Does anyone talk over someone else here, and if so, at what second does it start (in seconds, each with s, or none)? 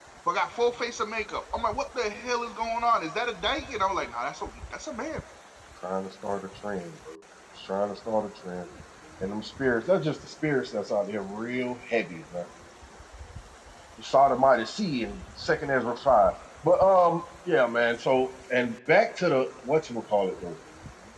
none